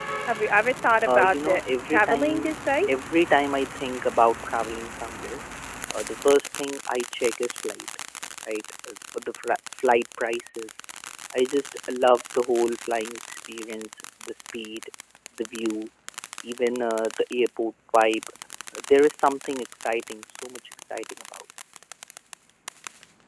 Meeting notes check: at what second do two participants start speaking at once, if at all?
1.1 s

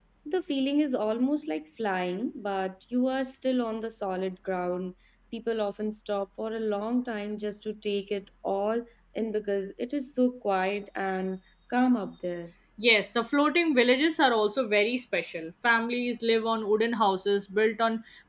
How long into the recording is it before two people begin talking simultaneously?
none

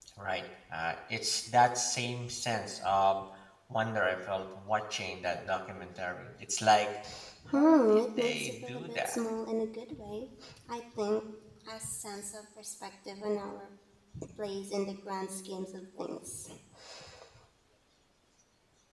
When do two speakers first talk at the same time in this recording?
7.5 s

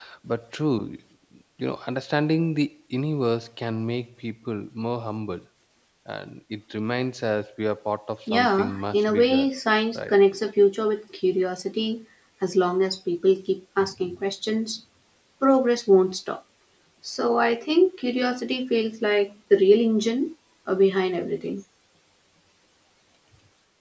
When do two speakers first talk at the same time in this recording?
8.3 s

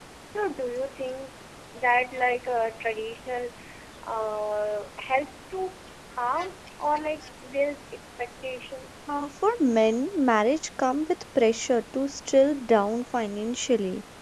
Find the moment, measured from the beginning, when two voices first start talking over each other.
none

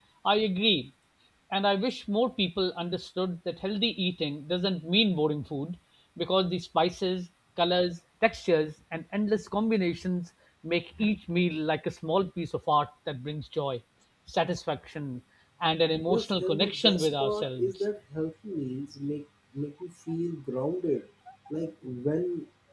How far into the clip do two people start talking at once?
16.1 s

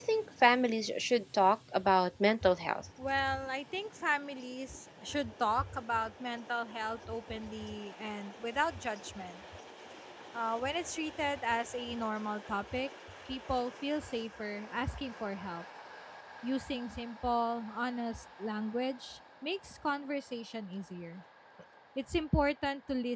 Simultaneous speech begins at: none

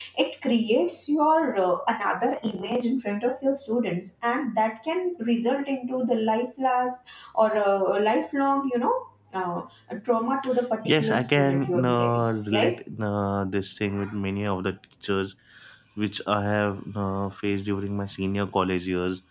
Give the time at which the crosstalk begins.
10.8 s

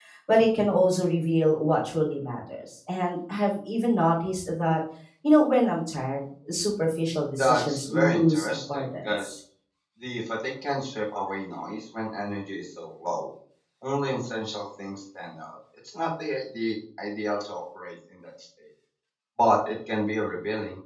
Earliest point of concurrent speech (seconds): 7.4 s

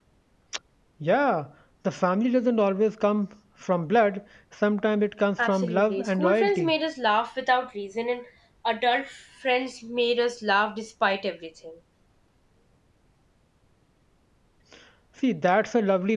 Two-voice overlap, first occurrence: 5.4 s

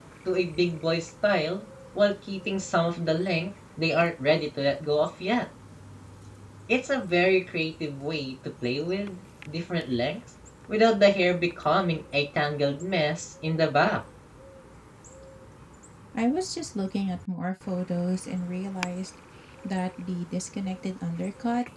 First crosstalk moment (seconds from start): none

